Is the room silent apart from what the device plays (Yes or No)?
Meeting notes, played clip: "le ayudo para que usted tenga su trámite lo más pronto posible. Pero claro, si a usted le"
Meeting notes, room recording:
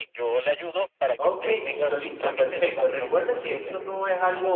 No